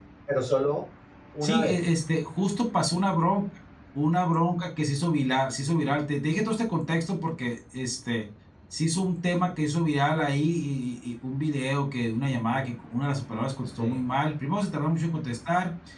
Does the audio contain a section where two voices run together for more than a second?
No

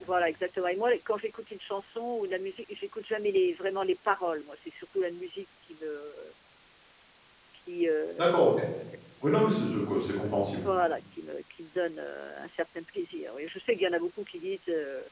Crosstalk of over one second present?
No

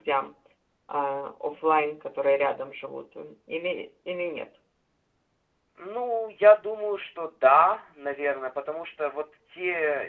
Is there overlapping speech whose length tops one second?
No

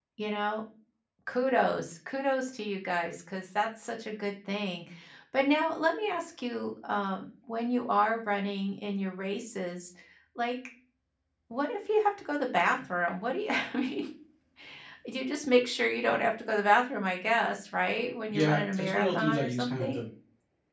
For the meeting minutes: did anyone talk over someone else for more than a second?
Yes, from 18.3 s

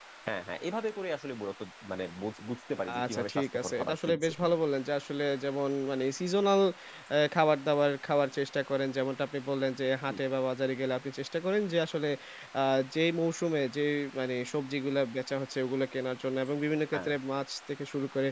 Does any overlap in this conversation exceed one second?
Yes, from 2.9 s

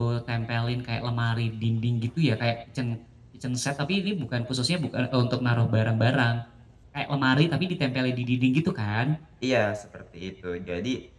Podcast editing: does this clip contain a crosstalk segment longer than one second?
No

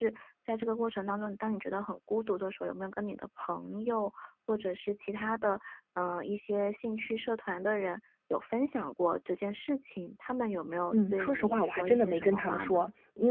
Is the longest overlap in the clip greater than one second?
Yes, from 10.9 s

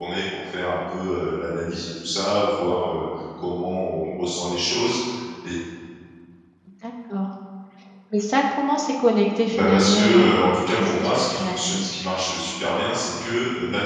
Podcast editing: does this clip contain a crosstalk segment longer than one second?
Yes, from 9.5 s

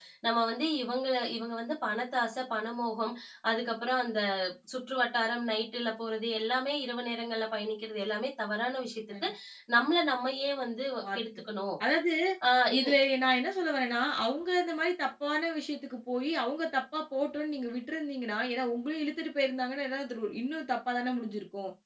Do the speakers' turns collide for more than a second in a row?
No

